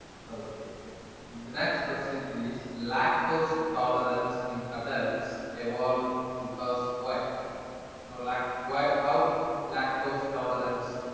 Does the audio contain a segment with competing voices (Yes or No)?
No